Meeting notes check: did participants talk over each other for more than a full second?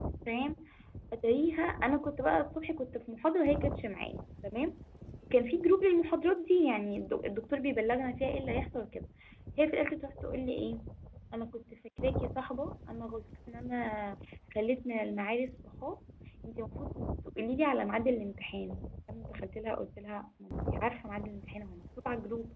No

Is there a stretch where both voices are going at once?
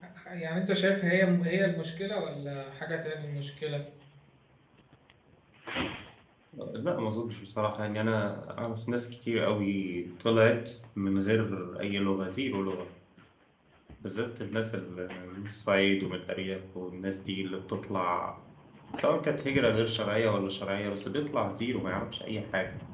No

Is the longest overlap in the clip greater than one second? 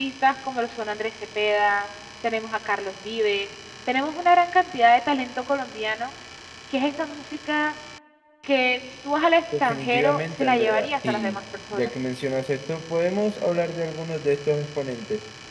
Yes, from 9.5 s

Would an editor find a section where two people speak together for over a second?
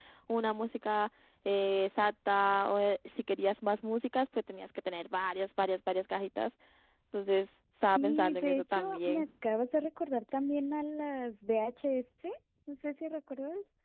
Yes, from 8.0 s

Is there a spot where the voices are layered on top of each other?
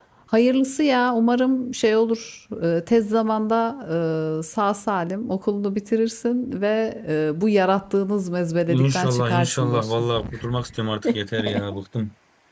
Yes, from 8.7 s

